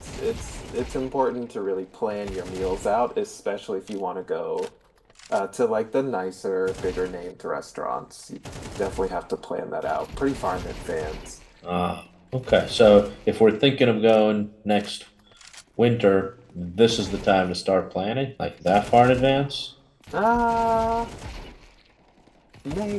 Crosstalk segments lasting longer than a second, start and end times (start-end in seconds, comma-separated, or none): none